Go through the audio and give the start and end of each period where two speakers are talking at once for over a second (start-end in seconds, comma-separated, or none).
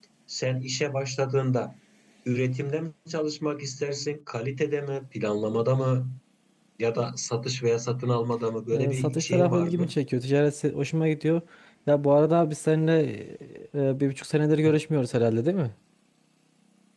8.7-9.9